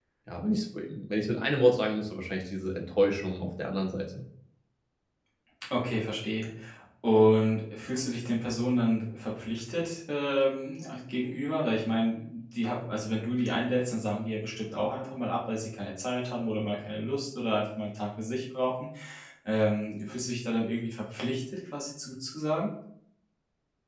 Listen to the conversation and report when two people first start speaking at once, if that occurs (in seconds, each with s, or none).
none